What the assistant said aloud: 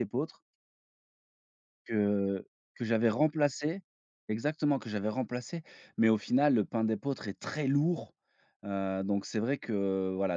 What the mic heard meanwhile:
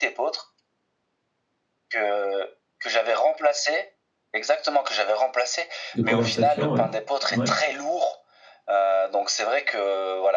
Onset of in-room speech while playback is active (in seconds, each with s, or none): 5.9 s